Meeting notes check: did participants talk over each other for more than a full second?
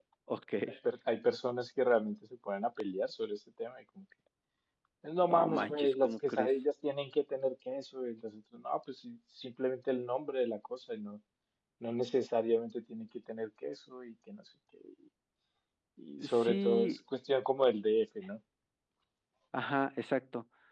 Yes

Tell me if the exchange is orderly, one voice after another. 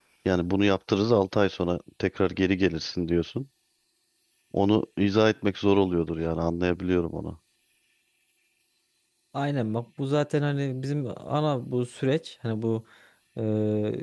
Yes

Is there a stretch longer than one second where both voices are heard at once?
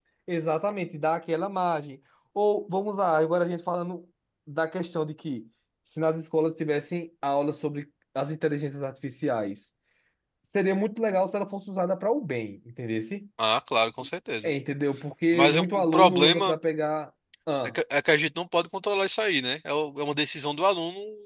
Yes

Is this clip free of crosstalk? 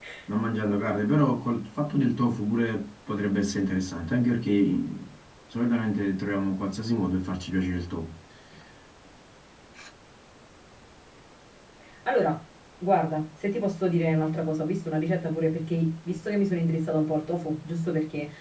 Yes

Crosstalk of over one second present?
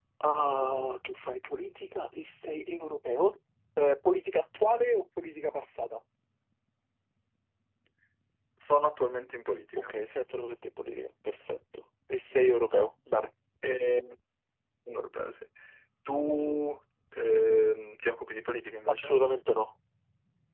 No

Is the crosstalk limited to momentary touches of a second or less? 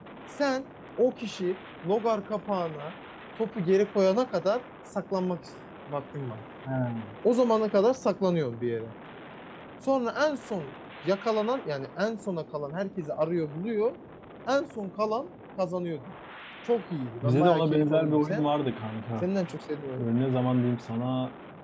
No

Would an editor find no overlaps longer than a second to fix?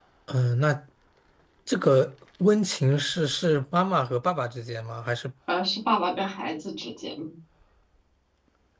Yes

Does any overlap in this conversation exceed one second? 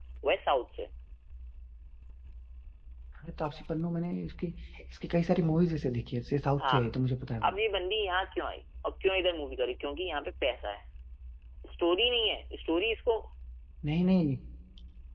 No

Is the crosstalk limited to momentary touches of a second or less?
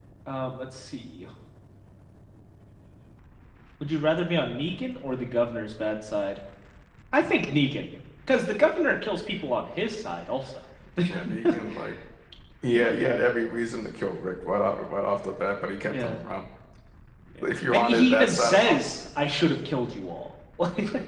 No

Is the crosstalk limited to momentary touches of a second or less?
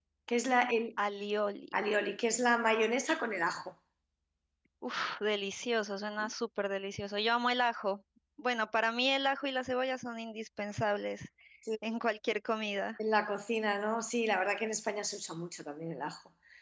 Yes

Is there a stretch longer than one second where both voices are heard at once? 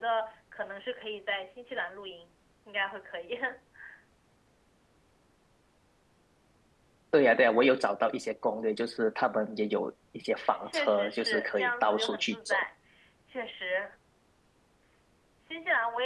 Yes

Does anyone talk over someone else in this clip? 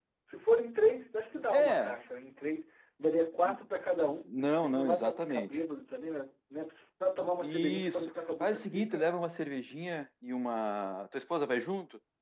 Yes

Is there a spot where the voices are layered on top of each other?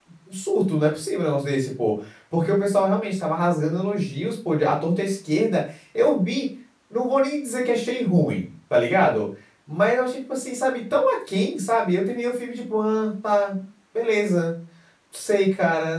No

